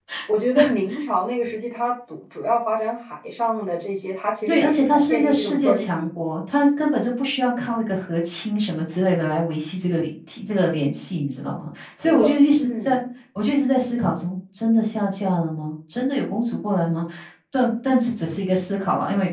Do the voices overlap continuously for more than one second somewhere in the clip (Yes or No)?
Yes